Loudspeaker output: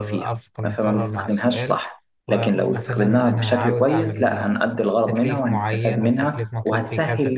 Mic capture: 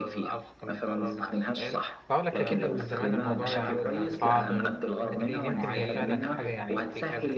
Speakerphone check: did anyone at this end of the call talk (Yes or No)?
Yes